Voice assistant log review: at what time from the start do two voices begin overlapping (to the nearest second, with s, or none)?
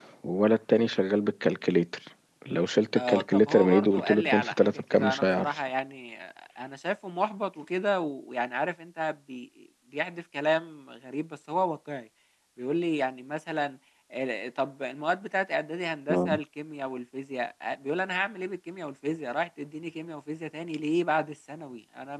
3 s